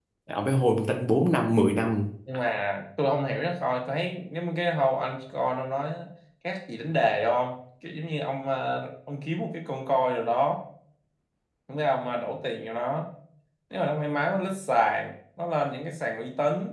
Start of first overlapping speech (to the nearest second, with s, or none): none